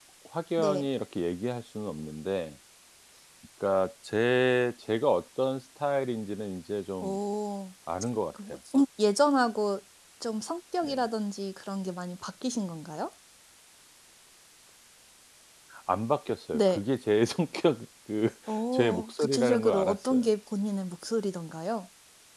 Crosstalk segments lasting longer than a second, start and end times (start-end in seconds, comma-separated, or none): 18.7-20.3